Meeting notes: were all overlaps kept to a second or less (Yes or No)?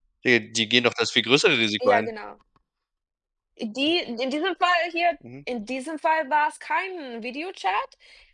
Yes